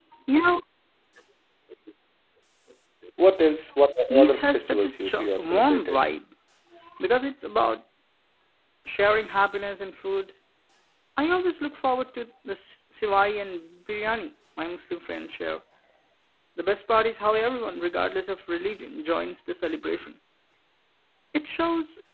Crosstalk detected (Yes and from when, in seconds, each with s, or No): Yes, from 4.1 s